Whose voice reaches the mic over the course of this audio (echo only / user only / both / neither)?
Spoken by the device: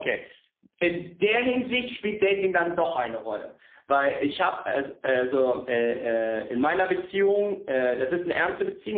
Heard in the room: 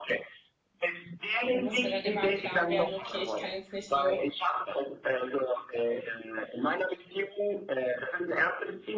both